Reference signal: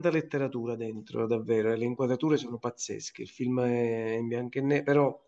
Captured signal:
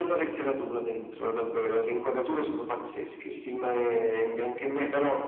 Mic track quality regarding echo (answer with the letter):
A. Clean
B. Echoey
B